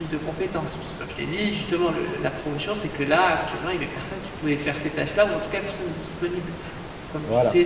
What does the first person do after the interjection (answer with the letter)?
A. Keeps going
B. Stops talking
A